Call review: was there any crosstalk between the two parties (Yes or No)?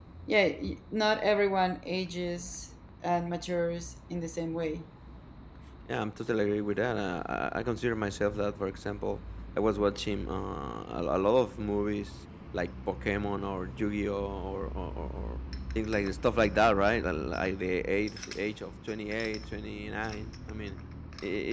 No